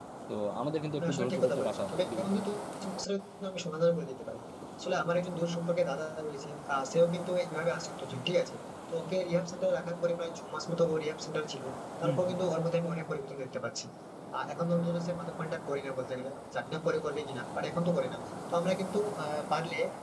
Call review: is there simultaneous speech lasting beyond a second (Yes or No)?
Yes